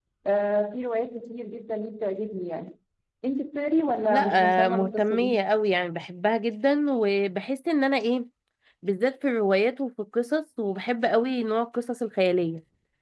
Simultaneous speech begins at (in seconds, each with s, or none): 4.1 s